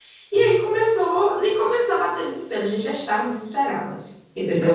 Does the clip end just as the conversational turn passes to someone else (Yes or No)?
Yes